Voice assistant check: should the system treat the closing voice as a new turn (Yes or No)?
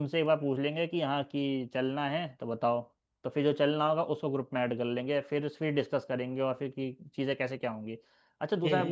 No